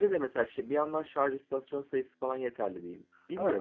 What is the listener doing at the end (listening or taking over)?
taking over